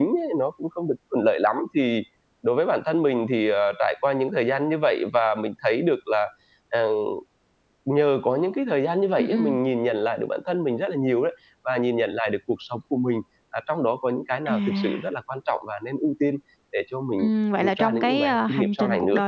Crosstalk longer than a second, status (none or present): present